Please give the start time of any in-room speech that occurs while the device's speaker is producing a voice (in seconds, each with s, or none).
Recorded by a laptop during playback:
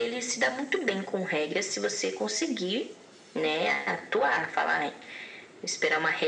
none